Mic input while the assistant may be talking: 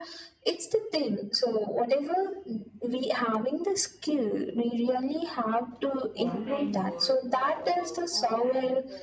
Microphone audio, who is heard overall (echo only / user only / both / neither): both